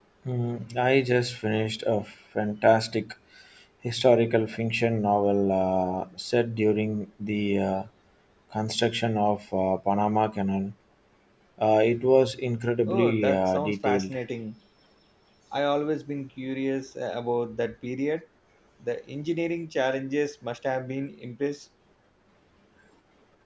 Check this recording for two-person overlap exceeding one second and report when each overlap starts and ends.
12.8-14.1

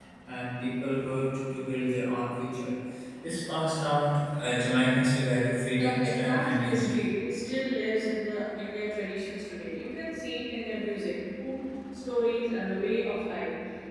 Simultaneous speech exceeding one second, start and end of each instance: 5.7-7.1

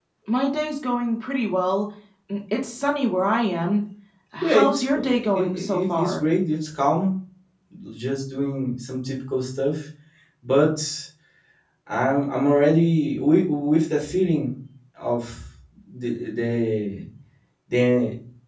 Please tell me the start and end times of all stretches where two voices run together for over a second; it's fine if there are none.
4.4-6.2

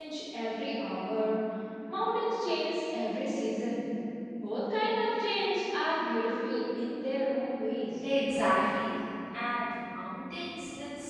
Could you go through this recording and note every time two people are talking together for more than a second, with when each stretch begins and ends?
none

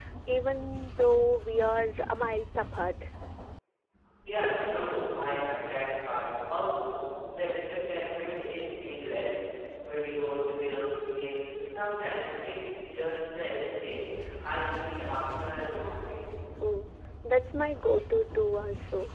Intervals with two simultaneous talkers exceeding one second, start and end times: none

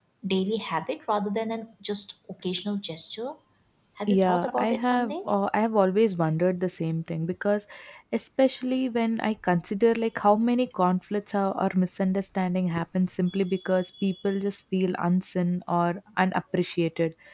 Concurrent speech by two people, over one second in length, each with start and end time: 4.1-5.3

